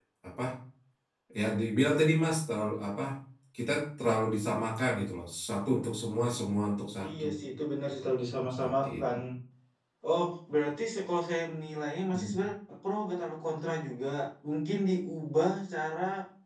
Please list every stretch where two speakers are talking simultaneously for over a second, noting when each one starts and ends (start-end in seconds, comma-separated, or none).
none